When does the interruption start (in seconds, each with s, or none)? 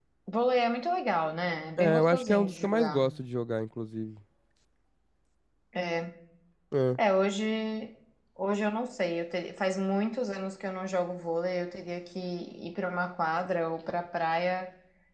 1.8 s